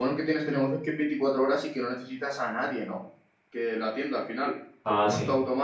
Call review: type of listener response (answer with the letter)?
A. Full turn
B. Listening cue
B